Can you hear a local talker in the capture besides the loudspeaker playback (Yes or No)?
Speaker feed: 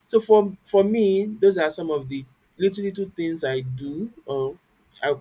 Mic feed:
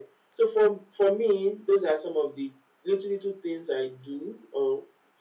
No